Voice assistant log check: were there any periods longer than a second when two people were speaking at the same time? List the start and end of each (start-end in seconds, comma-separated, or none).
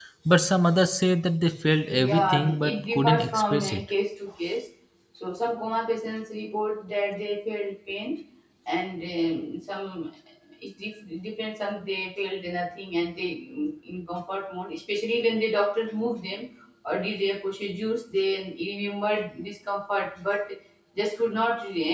1.9-3.9